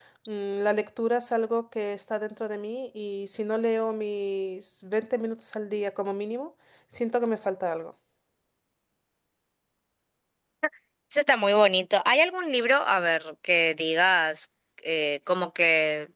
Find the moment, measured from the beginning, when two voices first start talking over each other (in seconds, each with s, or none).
none